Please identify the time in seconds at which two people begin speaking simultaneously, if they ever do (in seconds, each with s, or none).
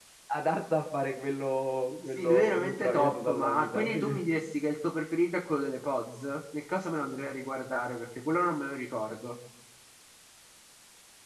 2.2 s